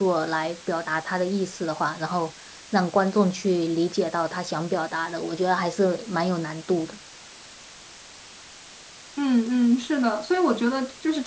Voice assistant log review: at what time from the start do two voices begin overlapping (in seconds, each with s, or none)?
none